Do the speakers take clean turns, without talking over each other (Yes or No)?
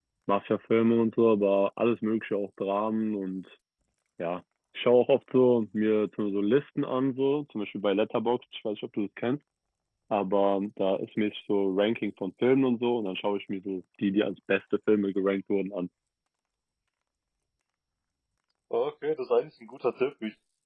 Yes